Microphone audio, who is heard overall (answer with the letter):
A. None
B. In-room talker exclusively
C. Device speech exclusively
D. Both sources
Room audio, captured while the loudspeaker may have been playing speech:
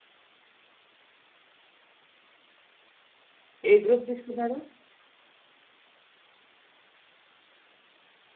B